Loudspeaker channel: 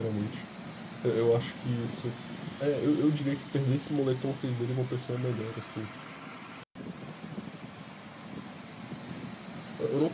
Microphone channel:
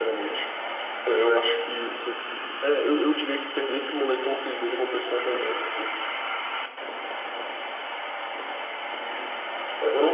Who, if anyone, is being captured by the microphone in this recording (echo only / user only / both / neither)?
echo only